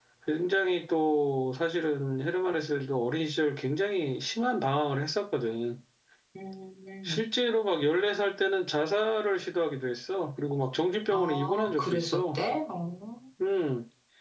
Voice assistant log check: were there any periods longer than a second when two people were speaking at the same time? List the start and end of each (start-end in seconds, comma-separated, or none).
11.1-12.4